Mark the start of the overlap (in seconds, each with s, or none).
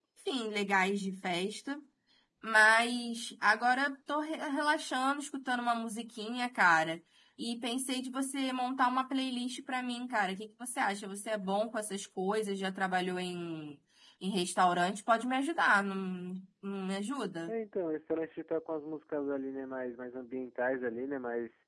none